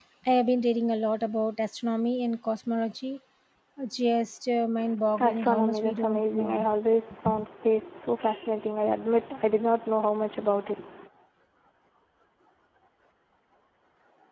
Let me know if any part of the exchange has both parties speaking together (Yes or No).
Yes